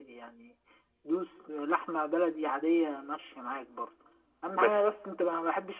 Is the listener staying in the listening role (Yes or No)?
Yes